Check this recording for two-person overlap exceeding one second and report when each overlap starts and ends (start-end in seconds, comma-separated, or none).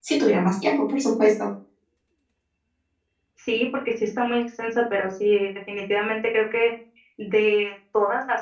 none